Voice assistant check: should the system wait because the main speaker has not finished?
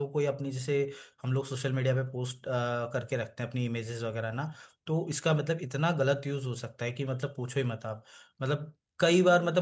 Yes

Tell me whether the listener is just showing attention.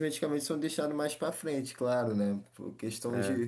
Yes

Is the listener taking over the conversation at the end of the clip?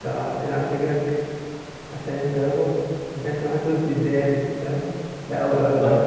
No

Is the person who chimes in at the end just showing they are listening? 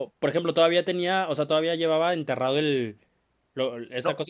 Yes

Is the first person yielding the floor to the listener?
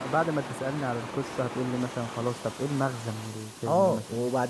Yes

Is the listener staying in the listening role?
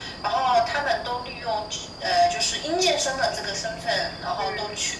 Yes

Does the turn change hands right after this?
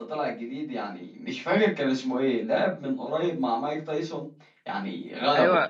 Yes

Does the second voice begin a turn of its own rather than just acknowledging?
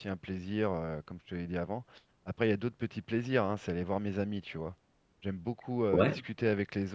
No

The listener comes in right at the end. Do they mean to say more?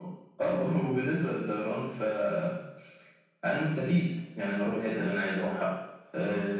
No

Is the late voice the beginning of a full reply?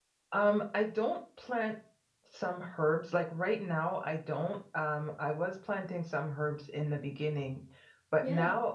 No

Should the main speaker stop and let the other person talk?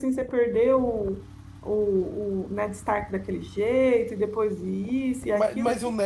Yes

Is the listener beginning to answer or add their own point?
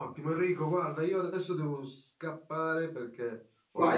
Yes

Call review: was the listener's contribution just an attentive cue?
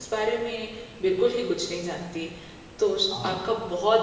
Yes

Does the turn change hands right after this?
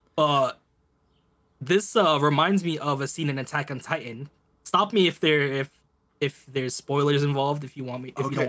Yes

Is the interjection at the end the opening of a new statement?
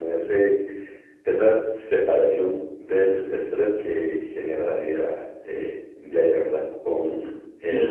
Yes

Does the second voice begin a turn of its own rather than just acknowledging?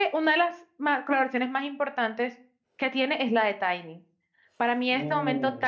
No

